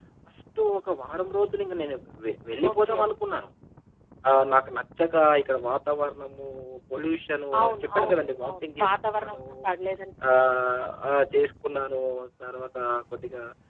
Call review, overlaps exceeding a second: present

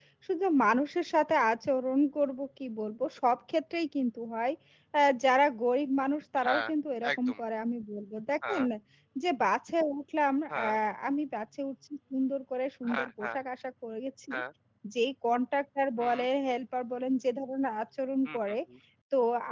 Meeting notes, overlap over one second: none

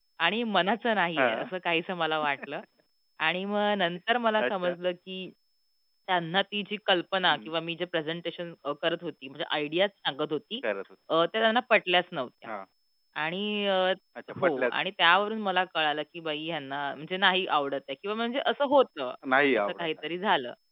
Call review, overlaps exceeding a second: none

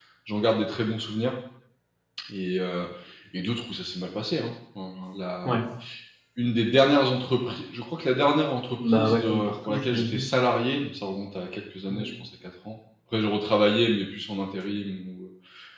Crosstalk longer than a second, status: present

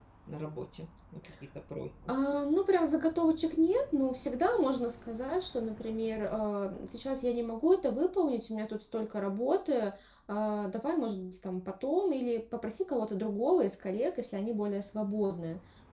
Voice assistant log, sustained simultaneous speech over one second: none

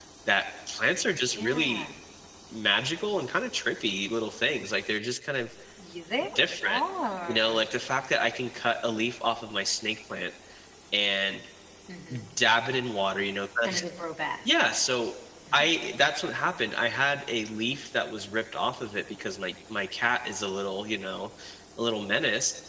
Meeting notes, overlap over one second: none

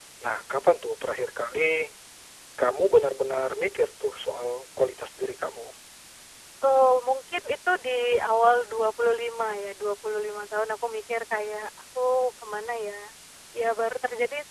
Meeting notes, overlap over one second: none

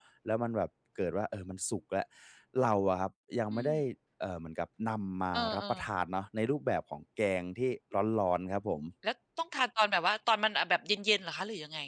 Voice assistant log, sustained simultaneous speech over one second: none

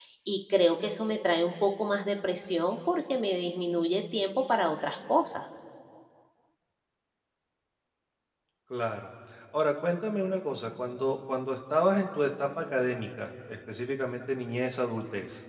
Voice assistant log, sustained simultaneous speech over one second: none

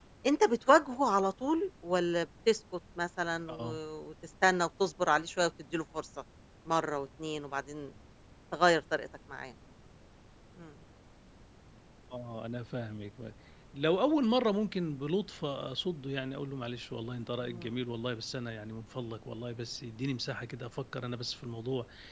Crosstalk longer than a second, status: none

